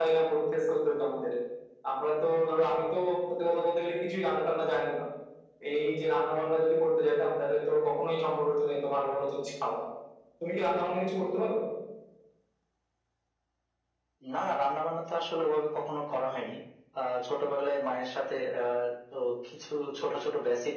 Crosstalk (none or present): none